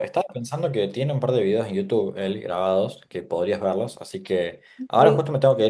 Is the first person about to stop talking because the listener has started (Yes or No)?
No